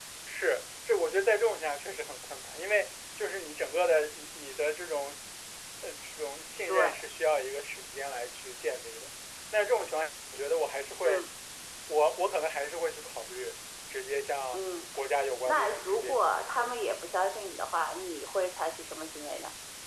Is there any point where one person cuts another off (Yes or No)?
Yes